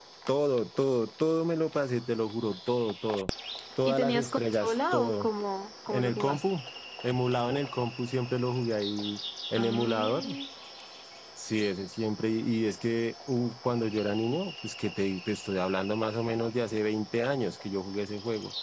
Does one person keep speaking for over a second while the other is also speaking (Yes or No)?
Yes